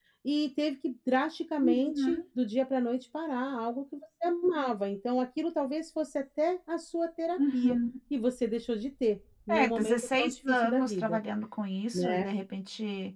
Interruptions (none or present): present